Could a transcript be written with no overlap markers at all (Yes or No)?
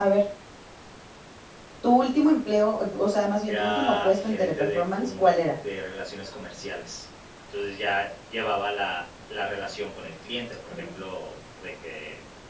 No